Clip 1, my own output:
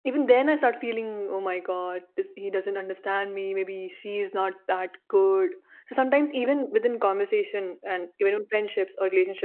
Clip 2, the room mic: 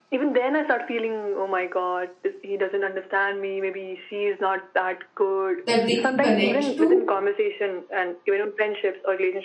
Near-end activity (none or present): present